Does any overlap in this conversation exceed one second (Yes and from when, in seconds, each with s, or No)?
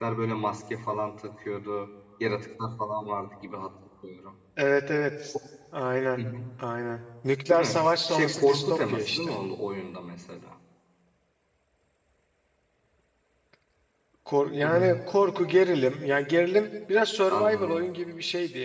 Yes, from 7.5 s